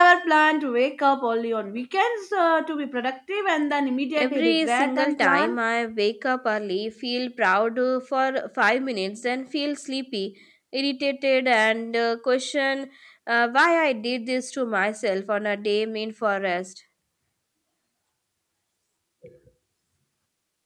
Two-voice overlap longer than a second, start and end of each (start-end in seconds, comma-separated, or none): 4.1-5.6